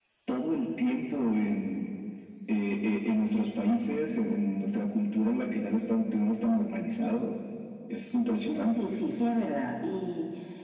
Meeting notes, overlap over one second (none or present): none